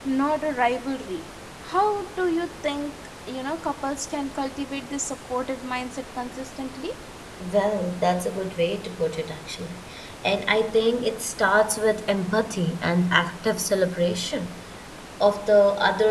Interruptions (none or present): none